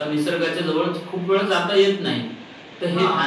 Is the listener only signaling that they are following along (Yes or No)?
Yes